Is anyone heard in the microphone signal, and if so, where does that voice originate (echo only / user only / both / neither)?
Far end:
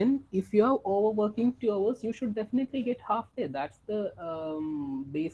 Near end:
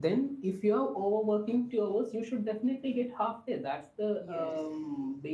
both